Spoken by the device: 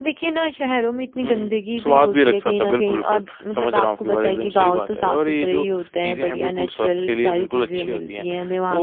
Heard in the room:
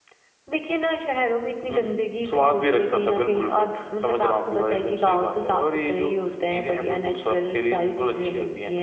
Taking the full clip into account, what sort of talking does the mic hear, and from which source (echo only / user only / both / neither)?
echo only